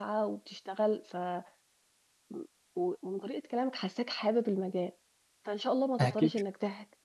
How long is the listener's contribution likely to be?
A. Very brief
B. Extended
A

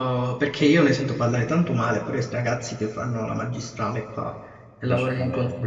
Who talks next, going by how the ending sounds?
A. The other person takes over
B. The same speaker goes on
B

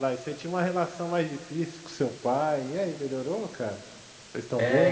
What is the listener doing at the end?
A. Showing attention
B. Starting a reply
B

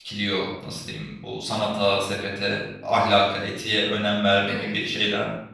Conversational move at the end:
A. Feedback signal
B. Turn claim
A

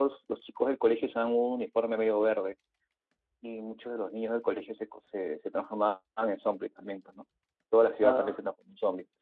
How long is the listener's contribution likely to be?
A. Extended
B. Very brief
B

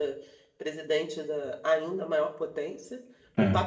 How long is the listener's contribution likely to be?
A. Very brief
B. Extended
A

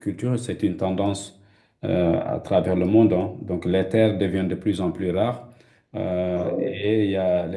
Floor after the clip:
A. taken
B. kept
B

